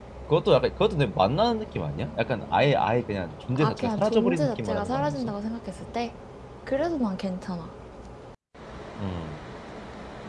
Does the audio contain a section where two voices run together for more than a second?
Yes, from 3.5 s

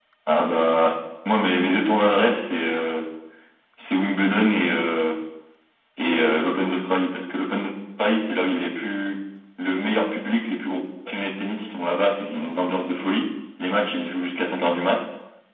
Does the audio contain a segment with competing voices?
No

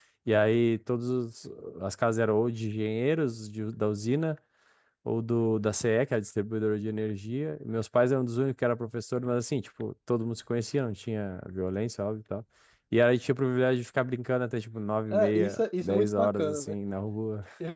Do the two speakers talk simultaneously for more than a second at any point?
Yes, from 15.1 s

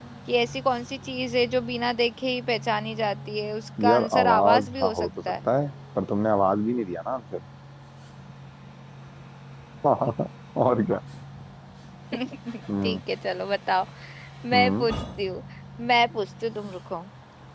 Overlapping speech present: Yes, from 3.8 s

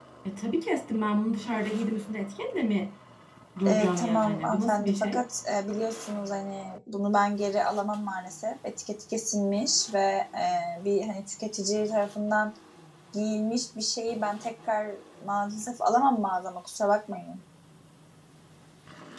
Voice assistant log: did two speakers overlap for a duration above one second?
Yes, from 3.7 s

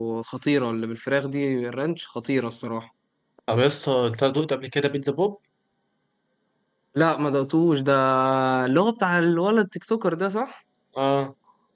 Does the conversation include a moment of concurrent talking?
No

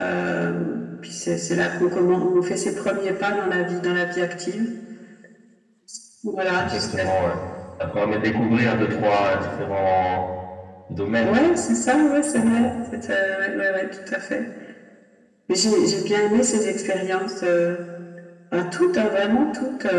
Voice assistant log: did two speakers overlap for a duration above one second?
No

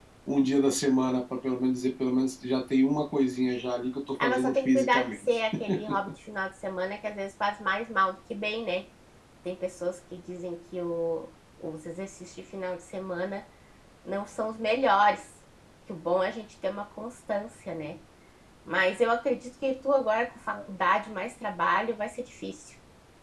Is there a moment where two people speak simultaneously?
Yes, from 4.2 s

